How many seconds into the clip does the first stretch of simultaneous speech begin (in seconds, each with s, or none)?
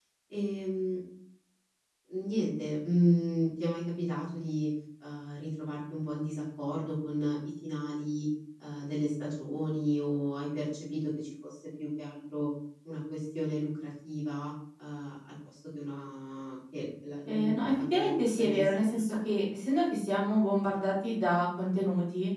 17.3 s